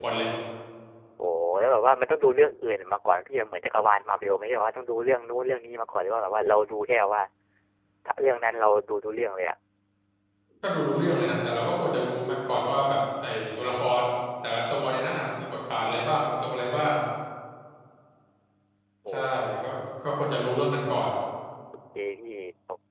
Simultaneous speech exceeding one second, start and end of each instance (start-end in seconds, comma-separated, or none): none